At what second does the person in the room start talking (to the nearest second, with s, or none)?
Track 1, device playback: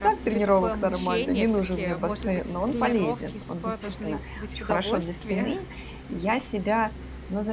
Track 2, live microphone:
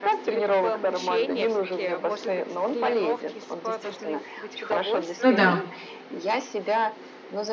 5 s